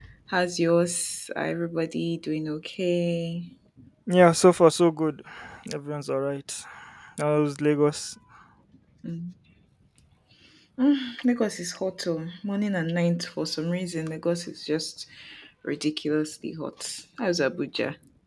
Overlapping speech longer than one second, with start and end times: none

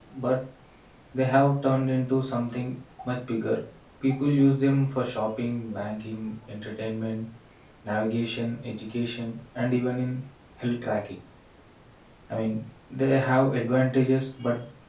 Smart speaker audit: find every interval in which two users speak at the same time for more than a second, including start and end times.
none

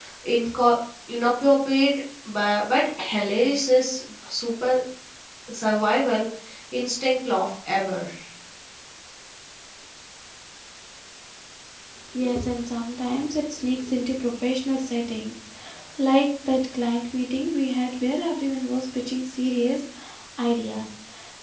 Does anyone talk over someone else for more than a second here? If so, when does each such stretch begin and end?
none

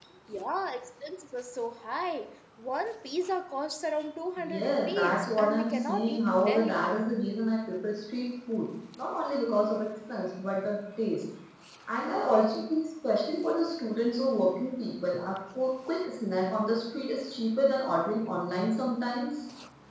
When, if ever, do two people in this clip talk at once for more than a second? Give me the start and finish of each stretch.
4.4-6.9

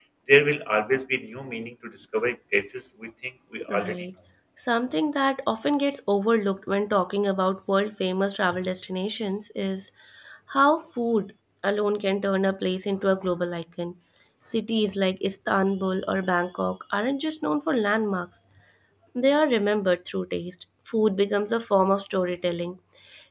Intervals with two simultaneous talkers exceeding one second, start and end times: none

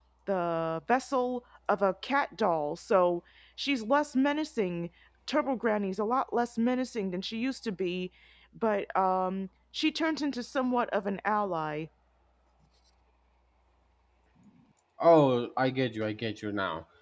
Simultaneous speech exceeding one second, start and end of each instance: none

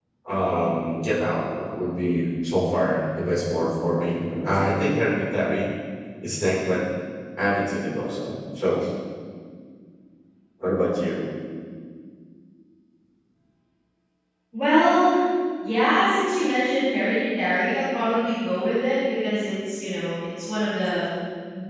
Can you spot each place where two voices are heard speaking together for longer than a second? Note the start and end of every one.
none

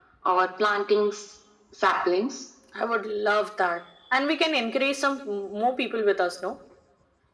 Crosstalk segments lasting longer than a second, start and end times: none

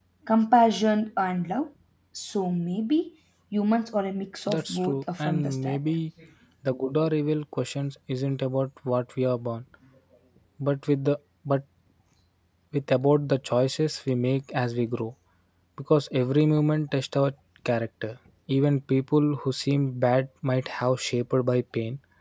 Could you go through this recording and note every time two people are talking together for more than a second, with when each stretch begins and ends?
4.5-5.8

